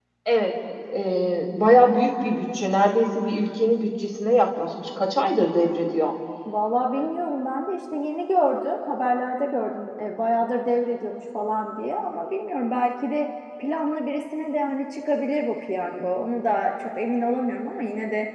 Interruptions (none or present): none